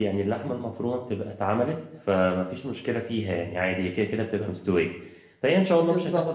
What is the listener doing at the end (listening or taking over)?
listening